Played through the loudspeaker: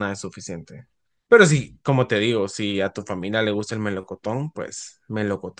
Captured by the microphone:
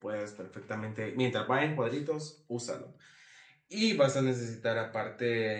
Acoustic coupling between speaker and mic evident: No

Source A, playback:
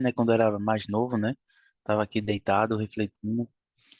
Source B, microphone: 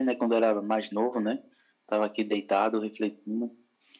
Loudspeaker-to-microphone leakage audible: Yes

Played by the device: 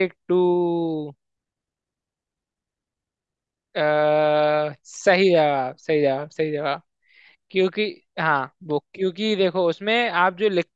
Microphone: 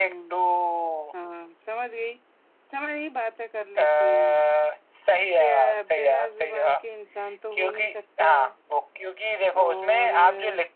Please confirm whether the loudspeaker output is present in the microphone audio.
Yes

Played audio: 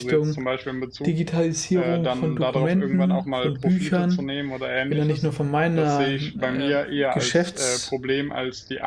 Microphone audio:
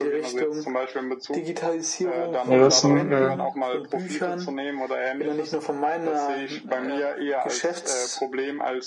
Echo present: Yes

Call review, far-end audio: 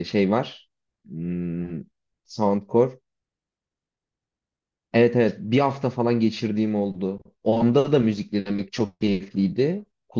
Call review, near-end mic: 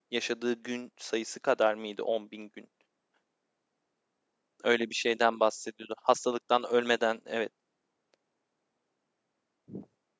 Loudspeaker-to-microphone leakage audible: No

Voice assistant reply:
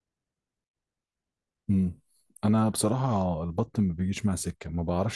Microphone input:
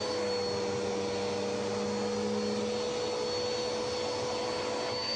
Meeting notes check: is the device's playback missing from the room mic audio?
Yes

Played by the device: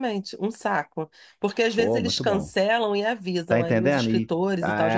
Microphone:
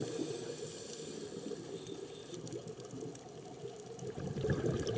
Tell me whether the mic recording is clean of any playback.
Yes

